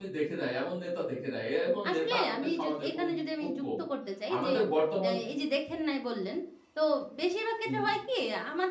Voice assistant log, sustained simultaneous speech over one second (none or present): present